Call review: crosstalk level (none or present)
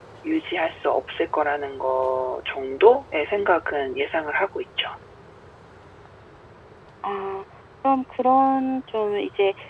none